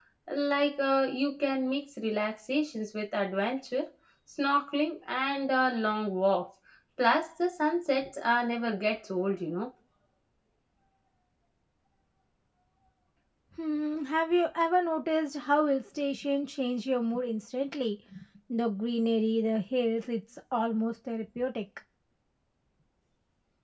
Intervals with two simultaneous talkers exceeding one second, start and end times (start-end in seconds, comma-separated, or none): none